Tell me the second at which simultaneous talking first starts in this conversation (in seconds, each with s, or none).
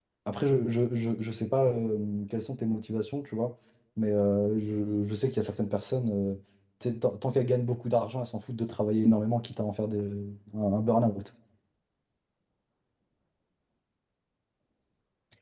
none